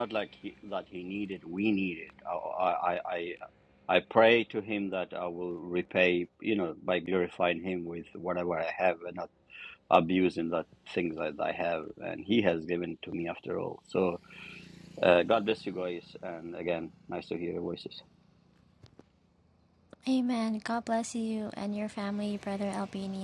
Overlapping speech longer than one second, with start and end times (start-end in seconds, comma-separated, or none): none